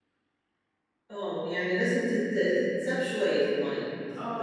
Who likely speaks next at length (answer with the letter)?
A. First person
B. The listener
B